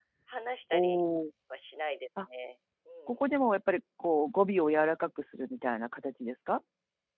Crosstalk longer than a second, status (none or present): none